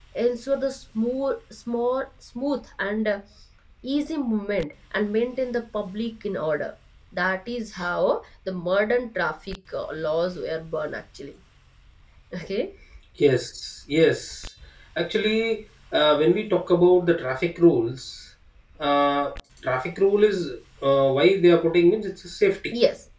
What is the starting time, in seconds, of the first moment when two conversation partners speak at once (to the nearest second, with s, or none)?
none